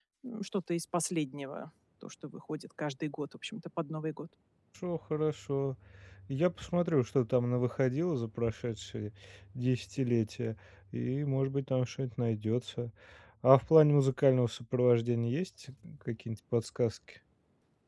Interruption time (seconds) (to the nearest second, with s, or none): none